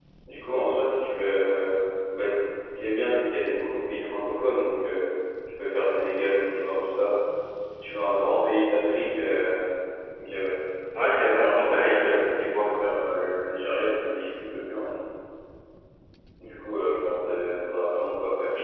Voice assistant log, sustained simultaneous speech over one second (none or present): present